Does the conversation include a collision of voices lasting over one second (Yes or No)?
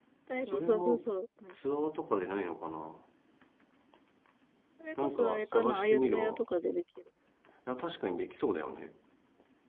Yes